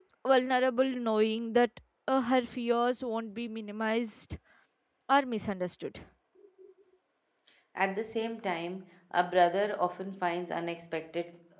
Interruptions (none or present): none